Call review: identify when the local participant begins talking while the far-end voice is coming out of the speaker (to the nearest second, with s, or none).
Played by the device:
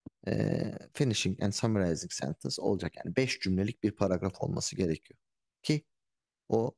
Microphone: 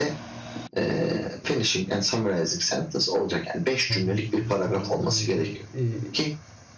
4 s